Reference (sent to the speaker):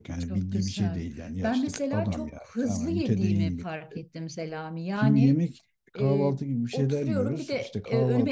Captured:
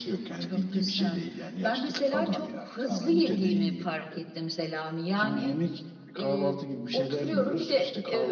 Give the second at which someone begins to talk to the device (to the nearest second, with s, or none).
none